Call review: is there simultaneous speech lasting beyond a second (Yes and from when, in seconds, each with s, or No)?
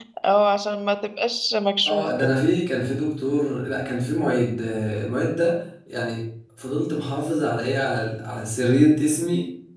No